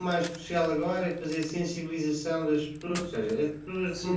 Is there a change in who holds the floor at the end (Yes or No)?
Yes